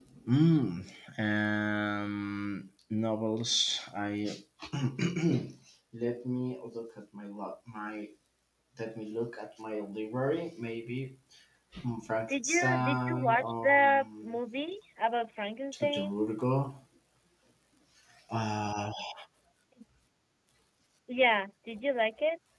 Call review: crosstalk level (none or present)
present